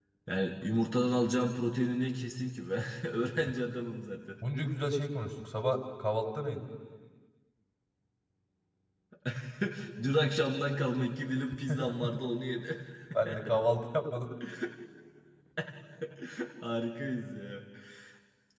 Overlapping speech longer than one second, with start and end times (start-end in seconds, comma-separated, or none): none